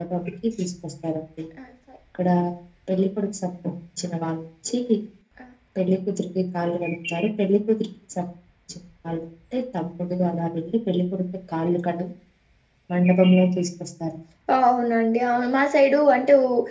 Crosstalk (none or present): none